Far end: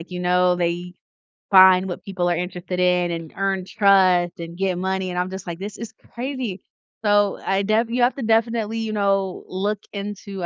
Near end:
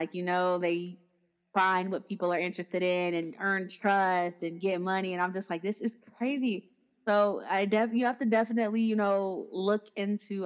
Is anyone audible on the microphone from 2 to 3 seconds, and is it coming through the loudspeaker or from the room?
echo only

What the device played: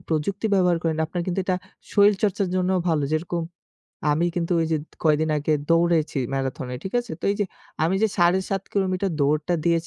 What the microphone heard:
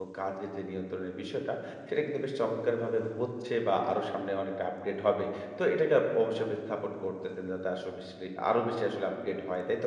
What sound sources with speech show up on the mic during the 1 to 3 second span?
user only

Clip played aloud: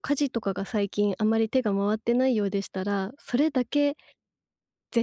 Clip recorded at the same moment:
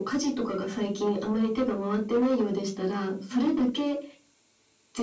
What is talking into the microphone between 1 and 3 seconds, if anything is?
echo only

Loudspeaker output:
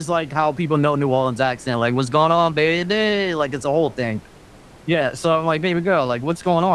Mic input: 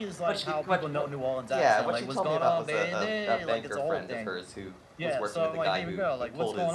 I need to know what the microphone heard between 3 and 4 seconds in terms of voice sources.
both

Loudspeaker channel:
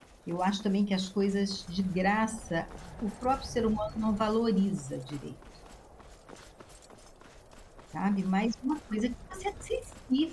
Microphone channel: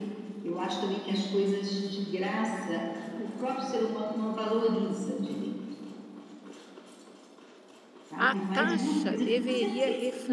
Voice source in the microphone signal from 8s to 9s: both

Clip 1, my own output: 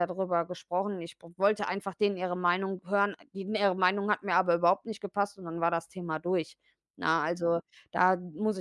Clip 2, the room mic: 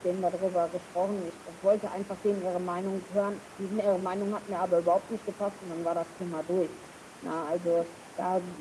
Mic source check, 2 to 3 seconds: echo only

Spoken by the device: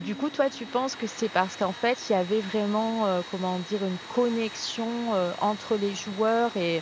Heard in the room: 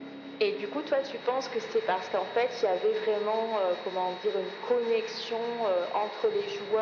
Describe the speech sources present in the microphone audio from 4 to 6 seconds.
echo only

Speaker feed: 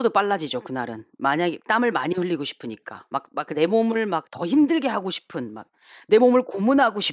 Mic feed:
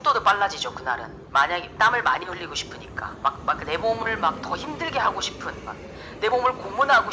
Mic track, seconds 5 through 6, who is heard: echo only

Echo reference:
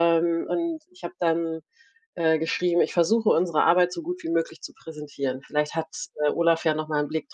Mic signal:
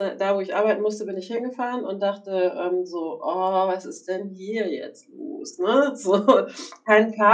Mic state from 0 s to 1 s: user only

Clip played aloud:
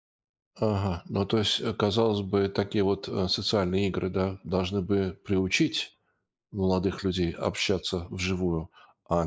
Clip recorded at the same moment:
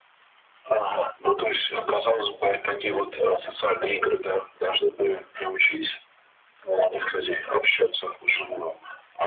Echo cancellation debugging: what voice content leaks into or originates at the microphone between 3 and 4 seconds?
echo only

